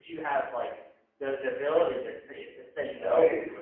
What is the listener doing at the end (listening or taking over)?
listening